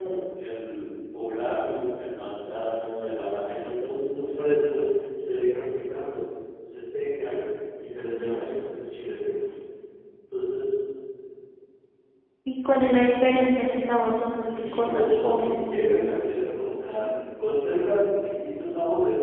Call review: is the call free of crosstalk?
No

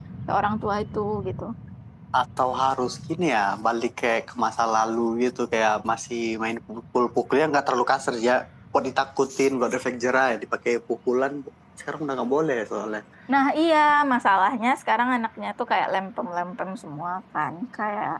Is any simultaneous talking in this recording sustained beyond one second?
No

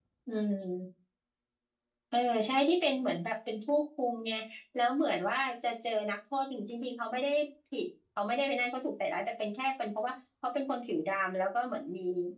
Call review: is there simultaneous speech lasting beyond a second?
No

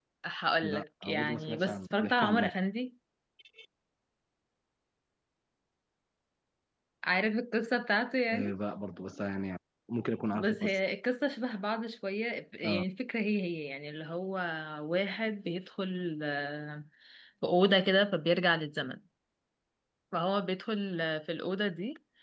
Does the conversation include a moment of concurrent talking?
Yes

